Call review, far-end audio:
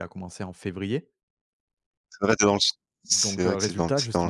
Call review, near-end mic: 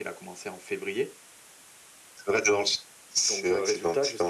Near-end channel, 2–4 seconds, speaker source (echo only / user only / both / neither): echo only